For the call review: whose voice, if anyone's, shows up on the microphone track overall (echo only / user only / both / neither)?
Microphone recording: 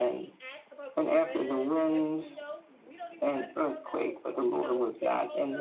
both